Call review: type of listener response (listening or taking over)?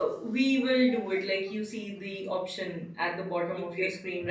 taking over